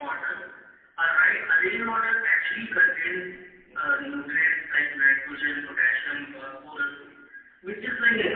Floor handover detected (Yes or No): No